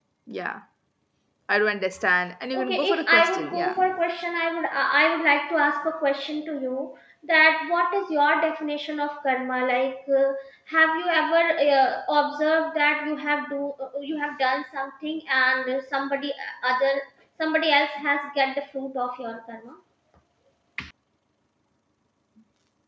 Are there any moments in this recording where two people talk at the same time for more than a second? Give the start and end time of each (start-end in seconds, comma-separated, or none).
2.5-3.8